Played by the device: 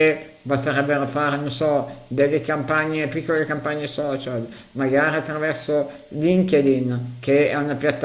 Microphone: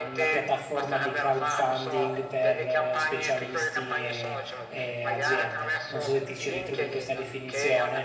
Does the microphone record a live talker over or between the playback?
Yes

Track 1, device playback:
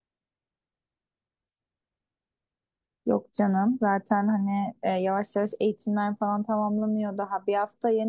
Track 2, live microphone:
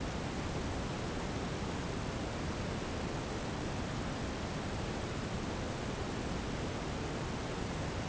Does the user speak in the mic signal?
No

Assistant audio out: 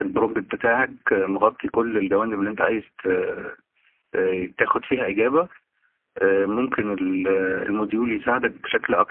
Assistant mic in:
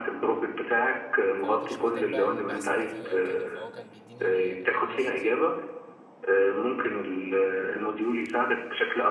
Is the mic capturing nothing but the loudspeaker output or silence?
No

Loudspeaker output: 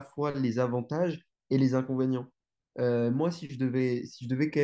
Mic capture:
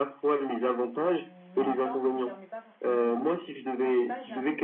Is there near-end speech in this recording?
Yes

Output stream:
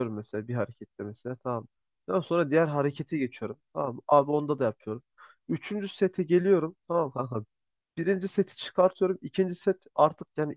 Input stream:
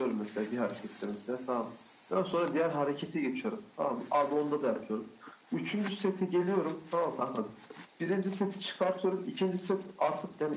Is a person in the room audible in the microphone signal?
No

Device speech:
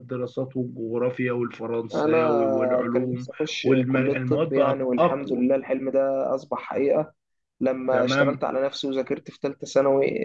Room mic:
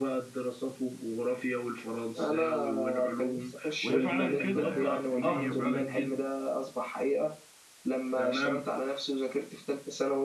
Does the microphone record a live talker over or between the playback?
Yes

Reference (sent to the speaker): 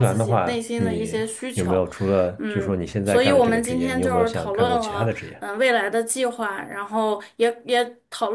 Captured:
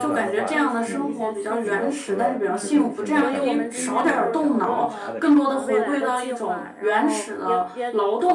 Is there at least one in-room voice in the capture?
Yes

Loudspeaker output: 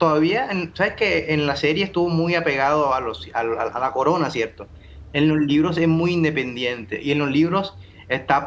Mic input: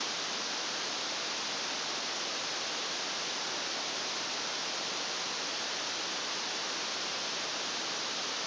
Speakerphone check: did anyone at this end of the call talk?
No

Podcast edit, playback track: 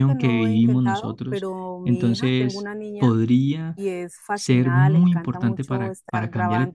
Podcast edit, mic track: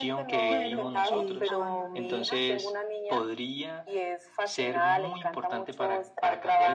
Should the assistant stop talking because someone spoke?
Yes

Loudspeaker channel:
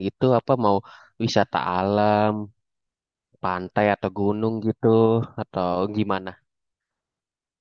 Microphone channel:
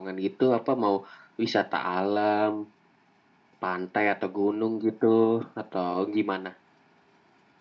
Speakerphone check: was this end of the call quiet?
Yes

